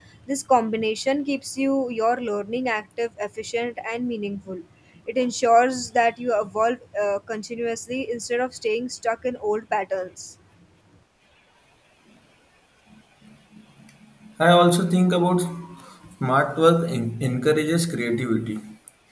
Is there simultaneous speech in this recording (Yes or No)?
No